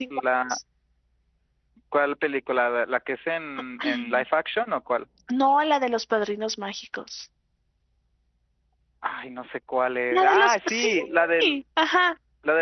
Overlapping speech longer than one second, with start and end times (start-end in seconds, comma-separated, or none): 10.1-11.6